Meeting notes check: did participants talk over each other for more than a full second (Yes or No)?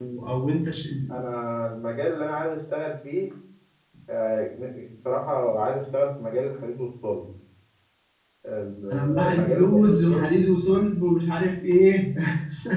Yes